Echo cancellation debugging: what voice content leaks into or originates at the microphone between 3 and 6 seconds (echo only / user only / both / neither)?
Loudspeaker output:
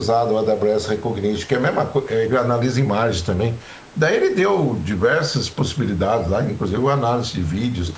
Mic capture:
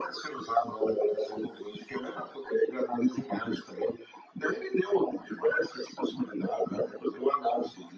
echo only